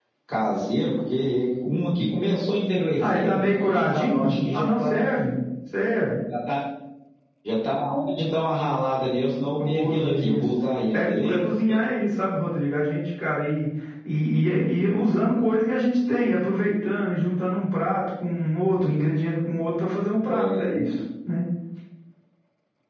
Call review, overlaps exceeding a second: present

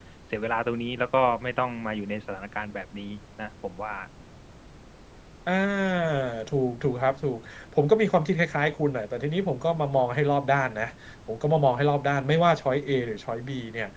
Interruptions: none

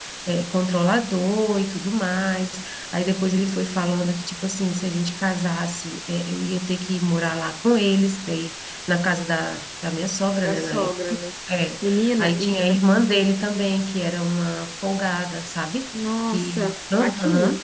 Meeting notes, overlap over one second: present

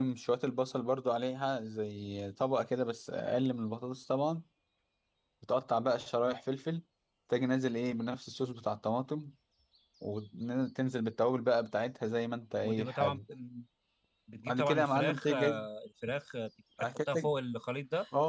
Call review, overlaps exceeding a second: present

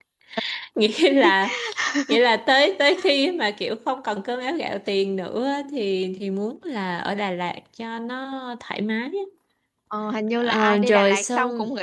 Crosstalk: present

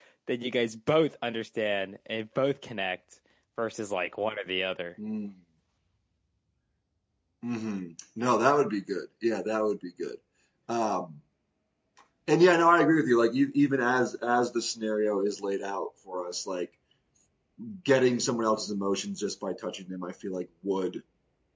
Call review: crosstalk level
none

